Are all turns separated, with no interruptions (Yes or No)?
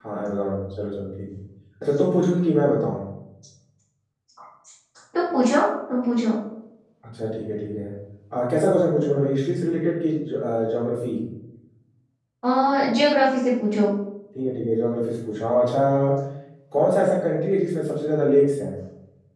Yes